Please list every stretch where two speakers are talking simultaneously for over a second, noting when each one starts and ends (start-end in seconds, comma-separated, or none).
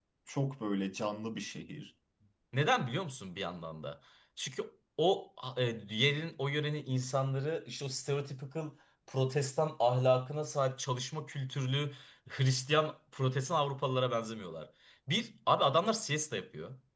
none